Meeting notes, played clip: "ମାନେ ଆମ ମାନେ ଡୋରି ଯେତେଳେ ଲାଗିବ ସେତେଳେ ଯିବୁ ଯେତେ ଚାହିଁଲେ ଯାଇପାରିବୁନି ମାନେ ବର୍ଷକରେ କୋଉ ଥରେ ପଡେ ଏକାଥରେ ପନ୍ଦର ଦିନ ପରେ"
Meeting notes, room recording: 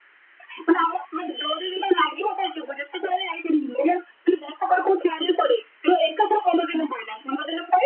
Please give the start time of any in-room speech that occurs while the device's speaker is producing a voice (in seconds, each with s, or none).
none